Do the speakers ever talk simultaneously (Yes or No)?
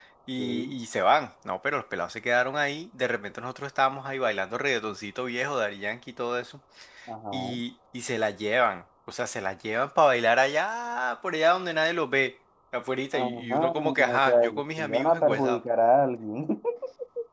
Yes